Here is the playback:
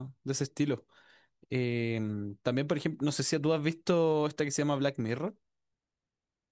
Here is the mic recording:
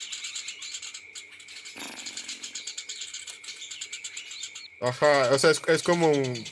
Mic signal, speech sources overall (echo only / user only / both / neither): user only